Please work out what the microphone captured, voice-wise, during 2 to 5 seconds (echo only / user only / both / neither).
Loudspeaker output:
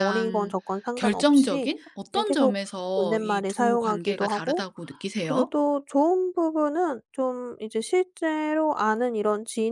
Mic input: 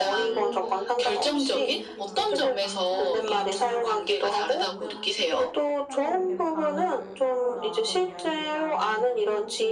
both